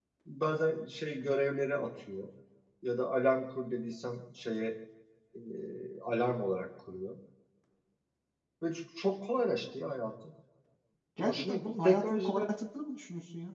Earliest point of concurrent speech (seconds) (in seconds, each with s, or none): 11.2 s